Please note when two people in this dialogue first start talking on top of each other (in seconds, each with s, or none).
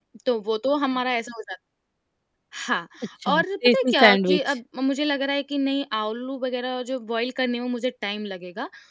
3.3 s